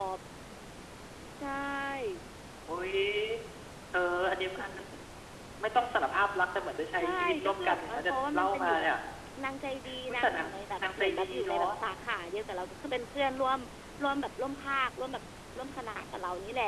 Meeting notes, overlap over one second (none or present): present